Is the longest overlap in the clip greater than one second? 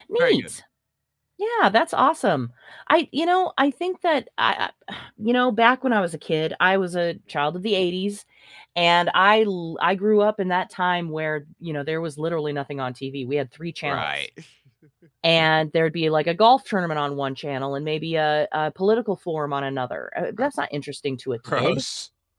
No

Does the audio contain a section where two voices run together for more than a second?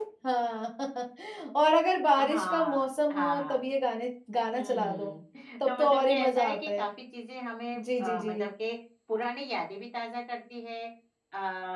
Yes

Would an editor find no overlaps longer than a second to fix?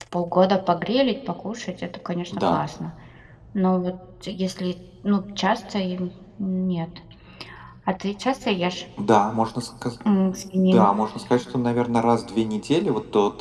Yes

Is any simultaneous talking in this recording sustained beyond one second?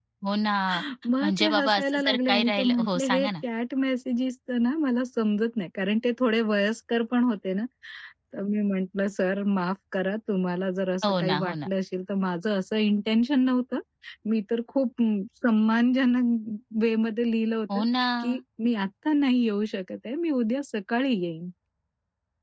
Yes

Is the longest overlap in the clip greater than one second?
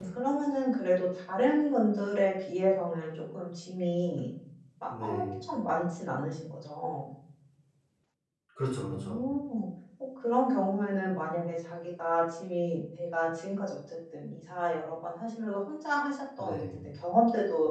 No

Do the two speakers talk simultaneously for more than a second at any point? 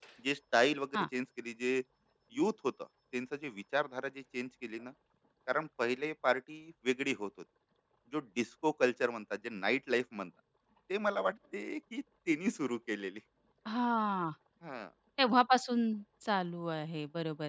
No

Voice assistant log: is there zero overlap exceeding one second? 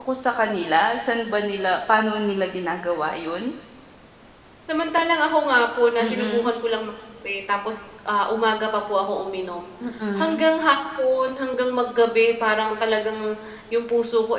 Yes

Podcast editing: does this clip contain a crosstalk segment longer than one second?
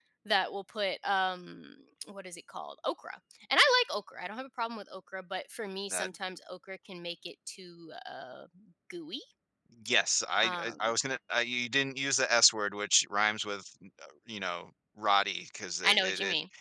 No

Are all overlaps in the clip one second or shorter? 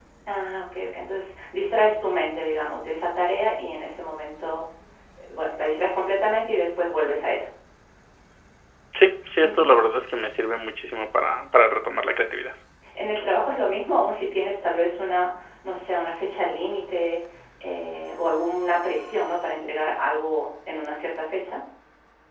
Yes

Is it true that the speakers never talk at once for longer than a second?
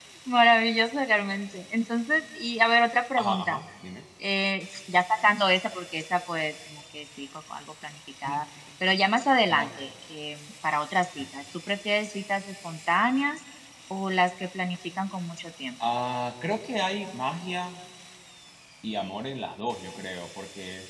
Yes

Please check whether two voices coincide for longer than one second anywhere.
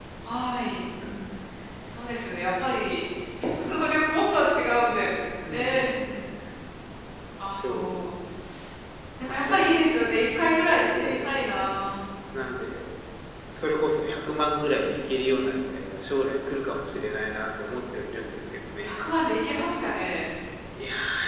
No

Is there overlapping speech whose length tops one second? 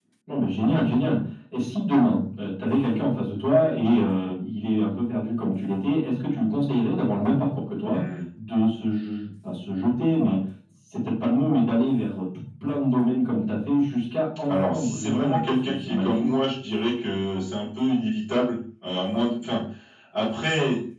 Yes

